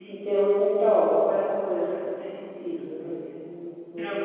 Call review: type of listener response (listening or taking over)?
taking over